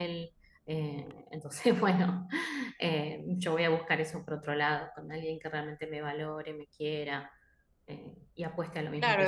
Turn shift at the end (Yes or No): Yes